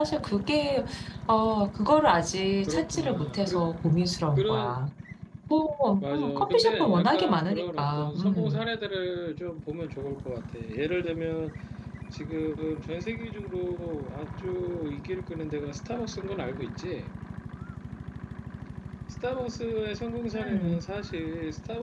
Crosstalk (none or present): present